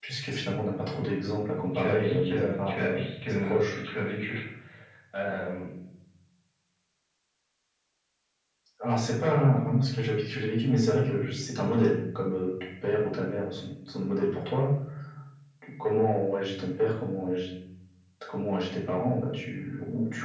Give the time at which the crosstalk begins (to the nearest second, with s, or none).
2 s